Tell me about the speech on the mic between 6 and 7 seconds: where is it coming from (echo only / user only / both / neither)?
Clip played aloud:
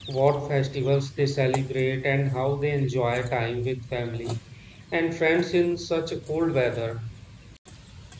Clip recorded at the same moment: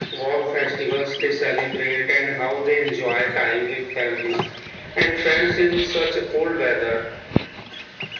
echo only